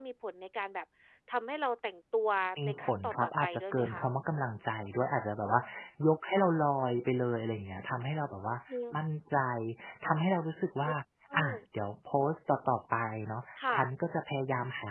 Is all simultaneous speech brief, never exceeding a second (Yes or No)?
No